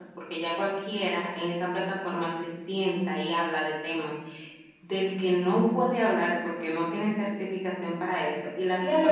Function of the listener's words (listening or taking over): taking over